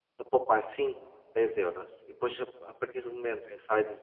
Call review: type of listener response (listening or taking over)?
listening